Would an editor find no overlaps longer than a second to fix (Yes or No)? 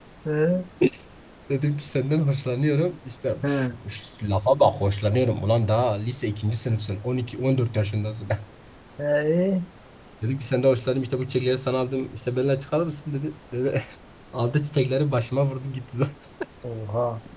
Yes